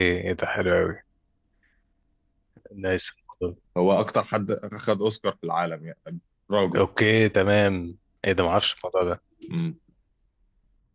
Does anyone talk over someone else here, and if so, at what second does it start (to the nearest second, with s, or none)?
none